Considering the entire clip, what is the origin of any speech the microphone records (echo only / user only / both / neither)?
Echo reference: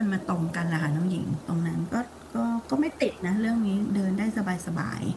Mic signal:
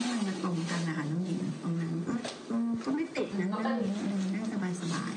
both